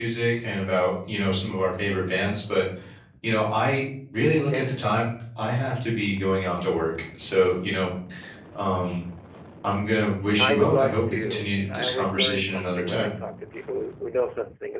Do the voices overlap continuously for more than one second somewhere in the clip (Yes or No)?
Yes